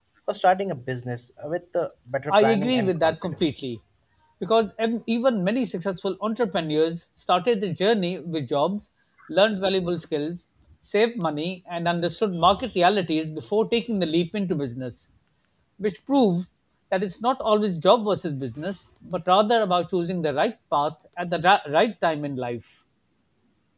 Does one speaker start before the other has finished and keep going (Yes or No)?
Yes